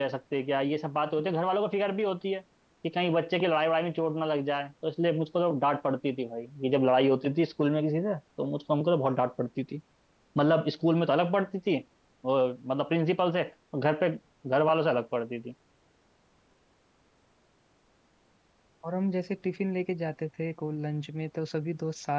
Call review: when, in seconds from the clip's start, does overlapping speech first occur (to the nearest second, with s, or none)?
none